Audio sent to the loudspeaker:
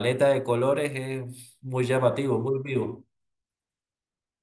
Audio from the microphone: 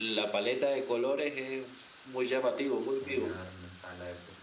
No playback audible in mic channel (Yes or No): No